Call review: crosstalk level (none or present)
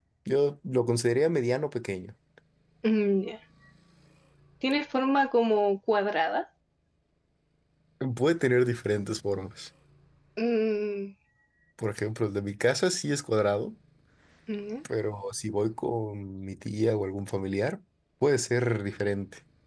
none